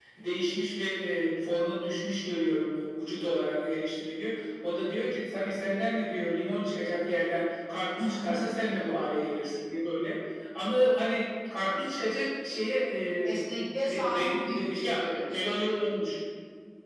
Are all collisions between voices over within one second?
No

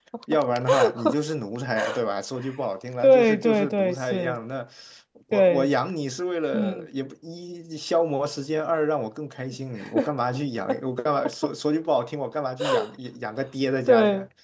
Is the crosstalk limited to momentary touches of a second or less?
No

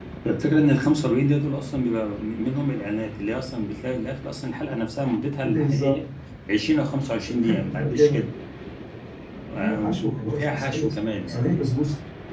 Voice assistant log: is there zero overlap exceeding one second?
No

